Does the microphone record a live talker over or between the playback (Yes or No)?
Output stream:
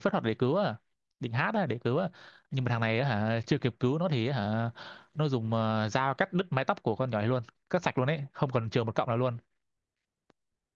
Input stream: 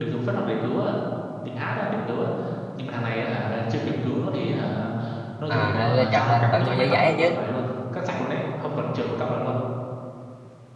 Yes